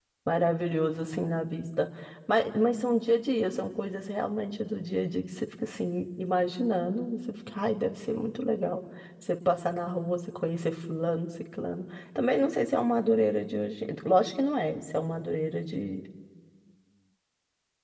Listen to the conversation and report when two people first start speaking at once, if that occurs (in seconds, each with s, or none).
none